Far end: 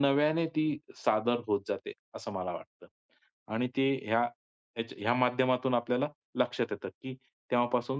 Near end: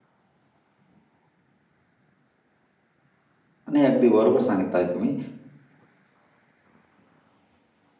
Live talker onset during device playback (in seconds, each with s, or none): 3.7 s